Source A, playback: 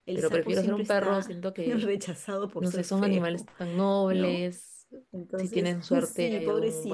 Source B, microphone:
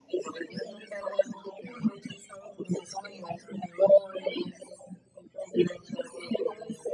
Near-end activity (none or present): none